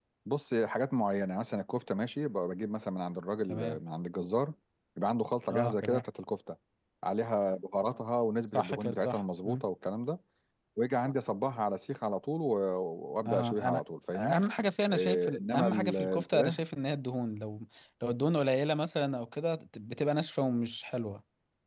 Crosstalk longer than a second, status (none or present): present